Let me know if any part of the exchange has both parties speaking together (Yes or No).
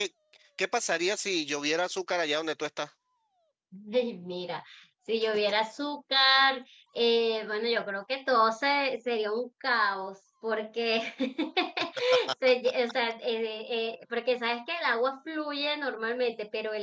No